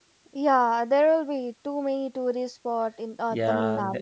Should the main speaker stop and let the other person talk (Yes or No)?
Yes